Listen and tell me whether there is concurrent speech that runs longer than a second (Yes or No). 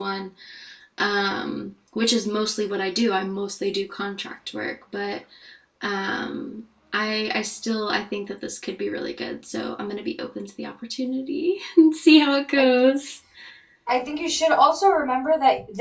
No